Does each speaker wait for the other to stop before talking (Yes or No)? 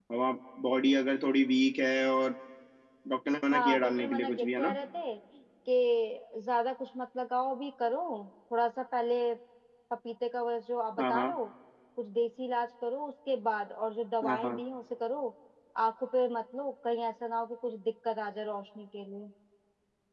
No